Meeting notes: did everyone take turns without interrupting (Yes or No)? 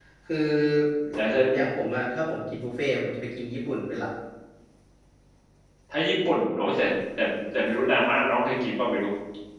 Yes